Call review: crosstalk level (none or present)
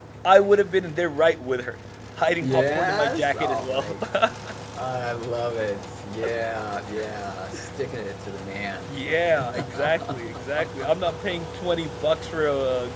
present